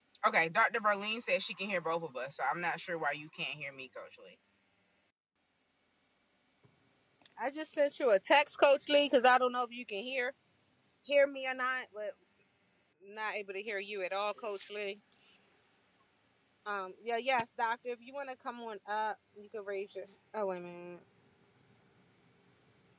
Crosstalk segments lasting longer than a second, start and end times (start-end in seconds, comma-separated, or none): none